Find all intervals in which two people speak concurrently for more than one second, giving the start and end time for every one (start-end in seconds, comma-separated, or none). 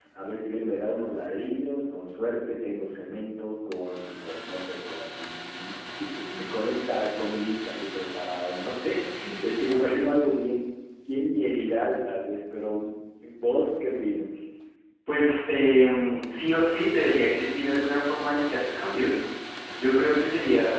none